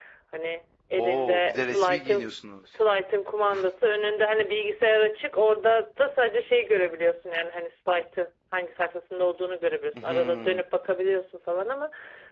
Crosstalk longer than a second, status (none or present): present